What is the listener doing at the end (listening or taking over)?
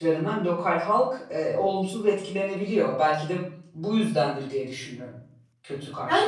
taking over